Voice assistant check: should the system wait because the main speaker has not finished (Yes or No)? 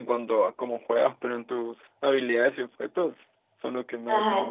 No